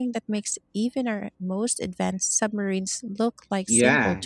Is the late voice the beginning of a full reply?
Yes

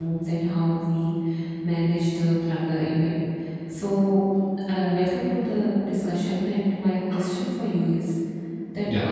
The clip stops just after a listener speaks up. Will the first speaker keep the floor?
Yes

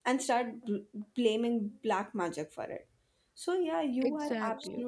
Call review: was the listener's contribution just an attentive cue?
Yes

